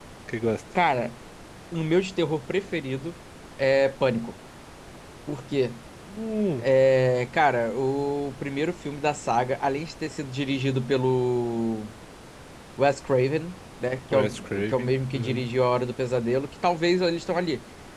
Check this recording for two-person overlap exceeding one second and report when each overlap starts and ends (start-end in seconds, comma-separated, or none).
14.1-15.5